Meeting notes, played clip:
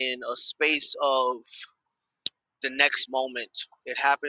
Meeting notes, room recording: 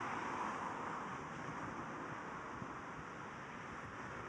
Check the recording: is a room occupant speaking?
No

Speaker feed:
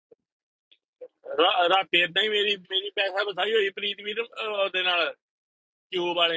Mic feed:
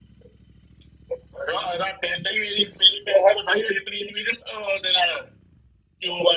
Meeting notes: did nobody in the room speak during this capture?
Yes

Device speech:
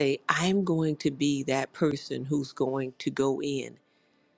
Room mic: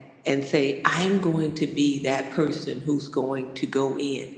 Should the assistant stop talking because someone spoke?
No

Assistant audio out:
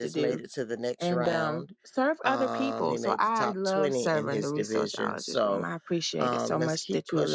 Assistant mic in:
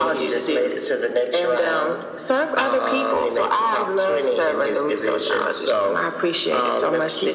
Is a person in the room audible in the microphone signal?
No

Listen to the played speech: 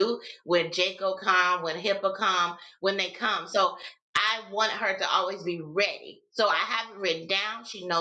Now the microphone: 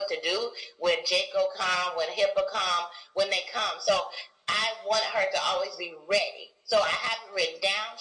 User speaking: No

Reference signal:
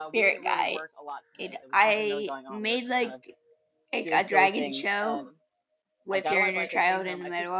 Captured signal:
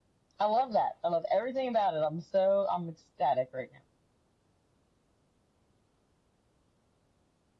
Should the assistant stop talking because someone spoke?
Yes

